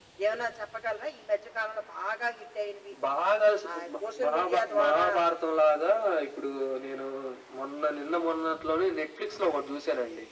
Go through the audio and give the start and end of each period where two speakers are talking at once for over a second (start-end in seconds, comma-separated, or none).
3.7-5.0